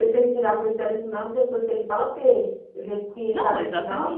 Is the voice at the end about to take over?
Yes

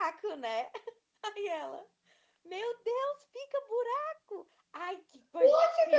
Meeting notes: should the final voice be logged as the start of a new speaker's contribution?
Yes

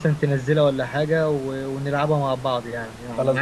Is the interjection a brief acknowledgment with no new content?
No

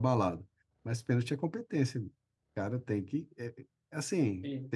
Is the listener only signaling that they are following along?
Yes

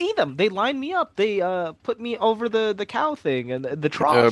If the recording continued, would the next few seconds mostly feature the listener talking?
Yes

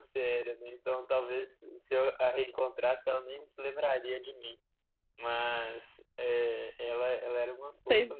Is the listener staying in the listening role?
Yes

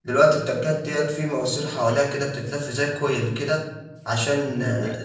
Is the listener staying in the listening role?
Yes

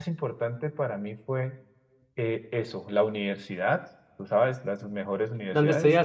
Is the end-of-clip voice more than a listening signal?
No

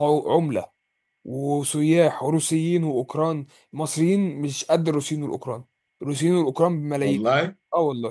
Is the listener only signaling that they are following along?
Yes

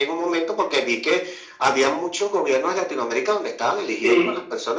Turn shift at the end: No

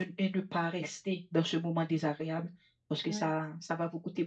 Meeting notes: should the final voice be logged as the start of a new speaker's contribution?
No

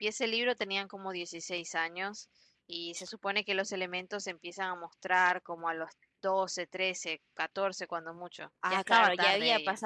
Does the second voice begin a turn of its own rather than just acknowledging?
Yes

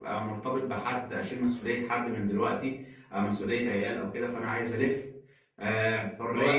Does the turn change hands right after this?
Yes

